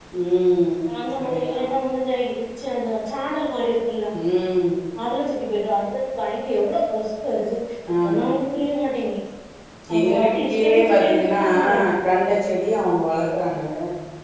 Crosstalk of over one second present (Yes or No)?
Yes